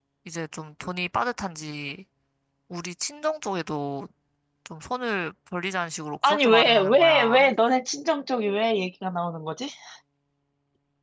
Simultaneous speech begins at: 6 s

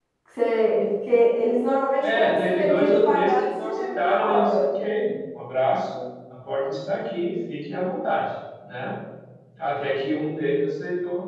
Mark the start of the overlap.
2 s

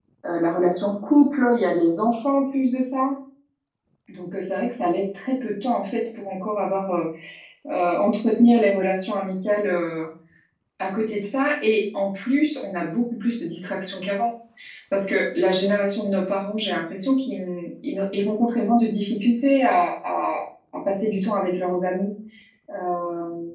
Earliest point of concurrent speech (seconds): none

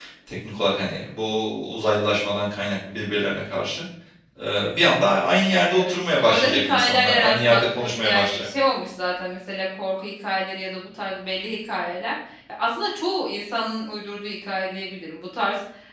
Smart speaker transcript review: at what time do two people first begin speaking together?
6 s

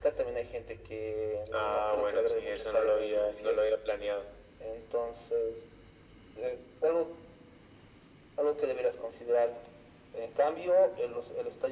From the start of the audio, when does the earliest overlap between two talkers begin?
1 s

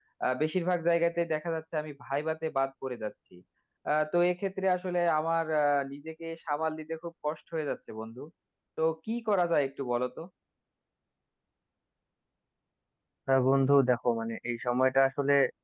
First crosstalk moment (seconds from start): none

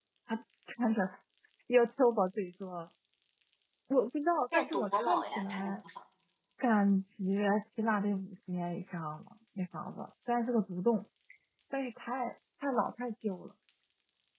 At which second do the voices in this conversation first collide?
5 s

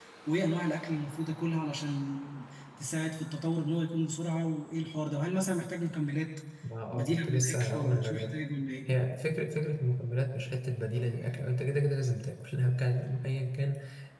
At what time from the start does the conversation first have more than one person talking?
7 s

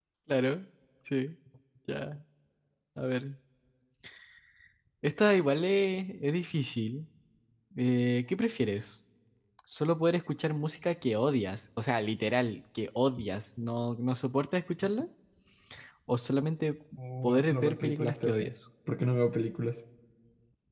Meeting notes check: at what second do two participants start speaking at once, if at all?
17 s

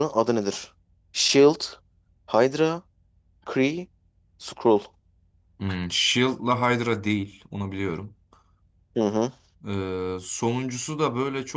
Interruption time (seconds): none

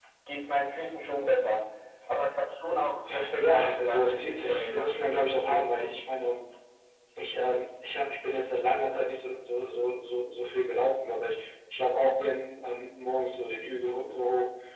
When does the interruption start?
3 s

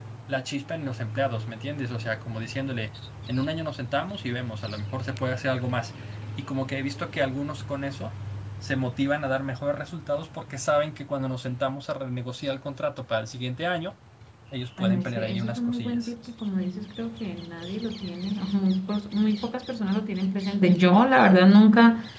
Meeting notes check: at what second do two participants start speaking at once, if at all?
15 s

